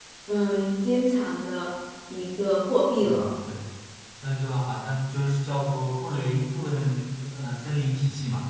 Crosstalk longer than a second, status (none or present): none